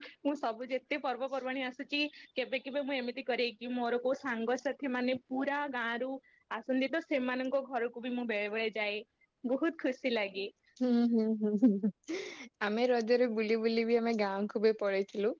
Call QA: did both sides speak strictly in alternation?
Yes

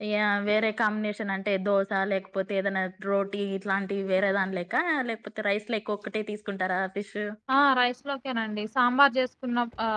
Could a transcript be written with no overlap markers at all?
Yes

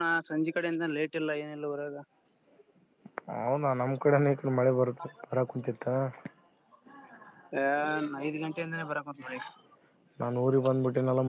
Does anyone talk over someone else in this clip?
No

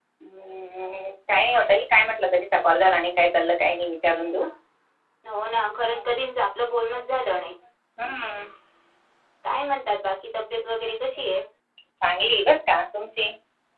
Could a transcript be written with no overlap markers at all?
Yes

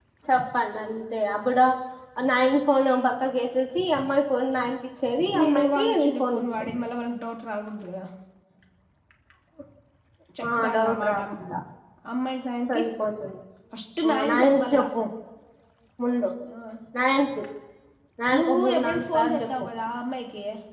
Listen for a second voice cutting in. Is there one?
Yes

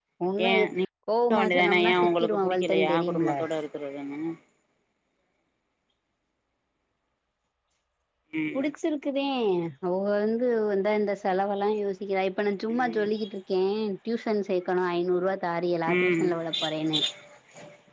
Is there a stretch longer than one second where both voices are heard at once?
Yes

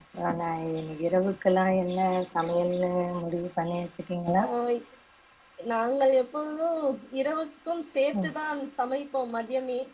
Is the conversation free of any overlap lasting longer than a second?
Yes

